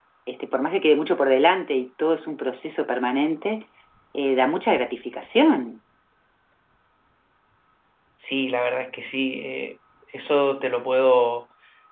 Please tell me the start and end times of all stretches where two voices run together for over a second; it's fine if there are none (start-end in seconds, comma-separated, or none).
none